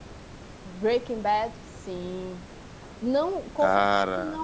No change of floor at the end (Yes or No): Yes